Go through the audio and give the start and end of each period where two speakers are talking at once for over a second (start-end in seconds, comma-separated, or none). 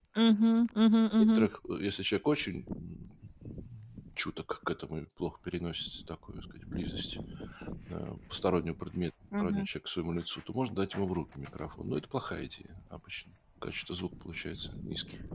none